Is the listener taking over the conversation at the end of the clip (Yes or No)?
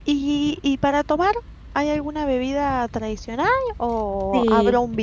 No